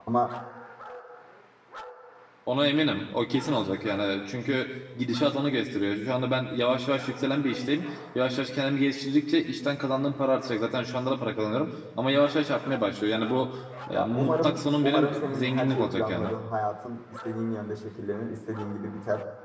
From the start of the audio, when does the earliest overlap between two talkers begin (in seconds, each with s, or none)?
13.9 s